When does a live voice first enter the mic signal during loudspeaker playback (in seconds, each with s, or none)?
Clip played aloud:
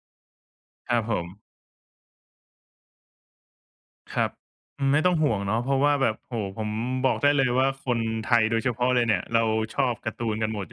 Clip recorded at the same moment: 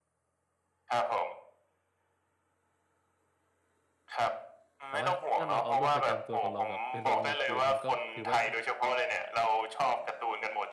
4.9 s